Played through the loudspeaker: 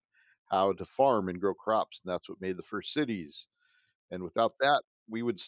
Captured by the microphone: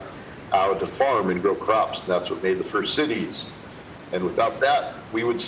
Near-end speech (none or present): none